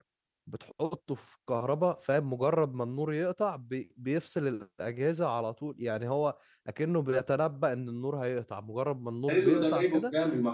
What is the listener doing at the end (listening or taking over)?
taking over